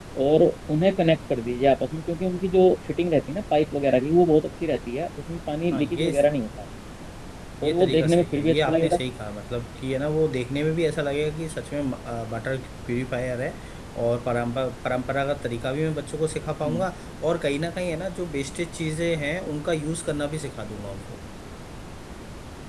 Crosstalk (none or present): present